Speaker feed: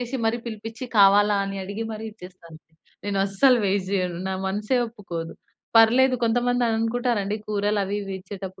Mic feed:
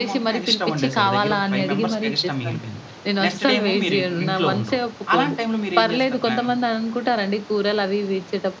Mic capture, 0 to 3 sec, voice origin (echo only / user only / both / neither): both